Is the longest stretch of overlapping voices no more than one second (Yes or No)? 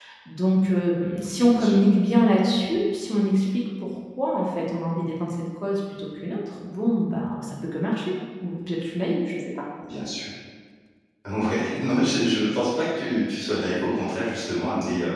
Yes